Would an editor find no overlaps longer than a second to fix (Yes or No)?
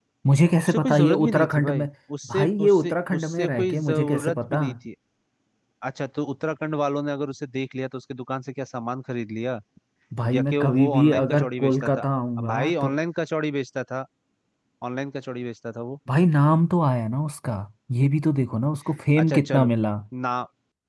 No